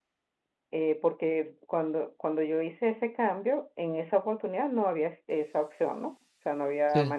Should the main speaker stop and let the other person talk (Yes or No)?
No